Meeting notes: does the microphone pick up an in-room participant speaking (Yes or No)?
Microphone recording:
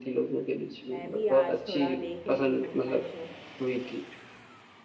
Yes